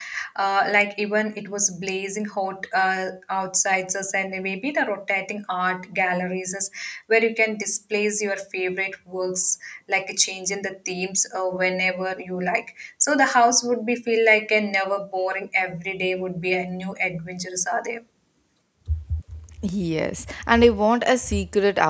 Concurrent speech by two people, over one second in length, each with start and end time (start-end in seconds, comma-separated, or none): none